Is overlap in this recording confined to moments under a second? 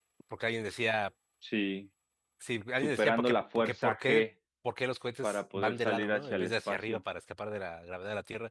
No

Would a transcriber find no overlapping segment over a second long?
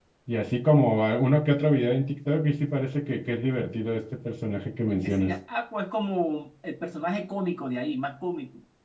Yes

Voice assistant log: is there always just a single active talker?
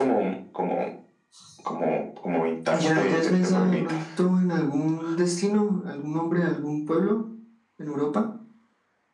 No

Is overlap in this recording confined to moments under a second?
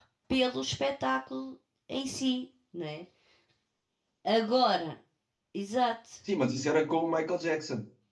Yes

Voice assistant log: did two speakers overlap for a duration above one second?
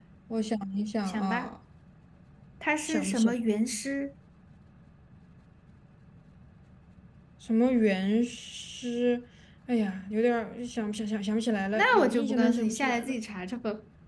Yes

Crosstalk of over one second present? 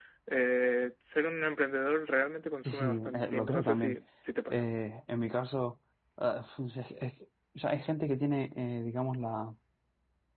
Yes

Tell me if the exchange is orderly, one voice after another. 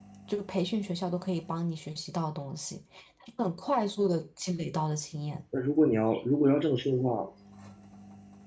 Yes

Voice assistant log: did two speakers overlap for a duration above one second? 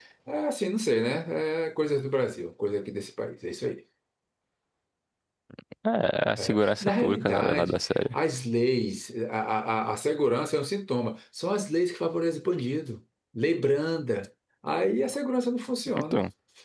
Yes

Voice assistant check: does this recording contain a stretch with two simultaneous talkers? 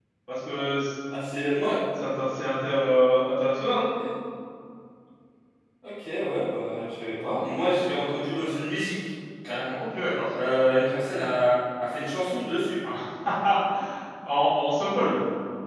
No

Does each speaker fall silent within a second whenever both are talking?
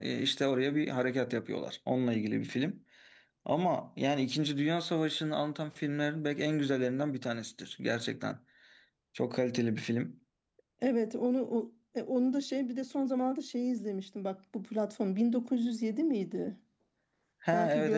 Yes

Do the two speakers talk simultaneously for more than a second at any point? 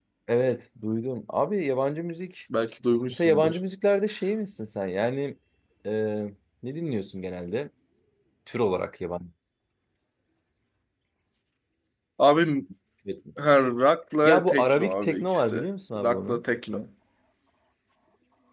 Yes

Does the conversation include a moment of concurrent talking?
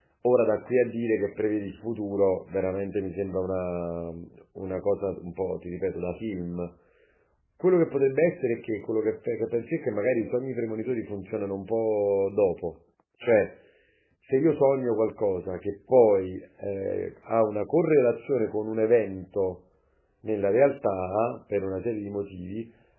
No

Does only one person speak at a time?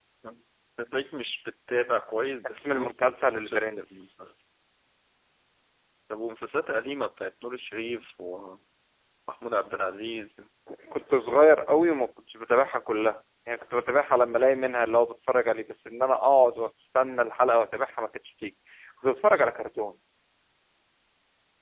No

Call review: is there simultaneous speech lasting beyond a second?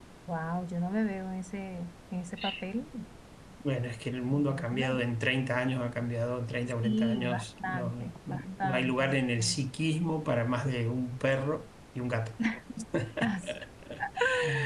Yes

